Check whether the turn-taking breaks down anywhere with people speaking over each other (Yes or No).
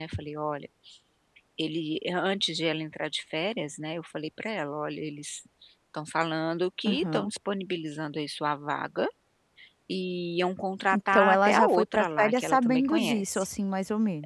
Yes